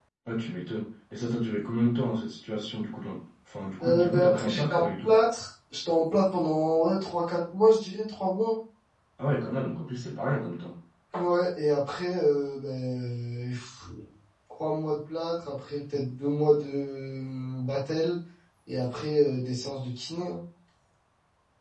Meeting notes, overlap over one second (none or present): present